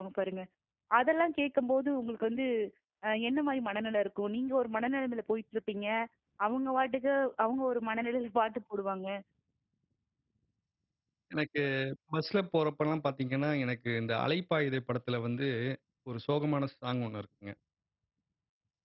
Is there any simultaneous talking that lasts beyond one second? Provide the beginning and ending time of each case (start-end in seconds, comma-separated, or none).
none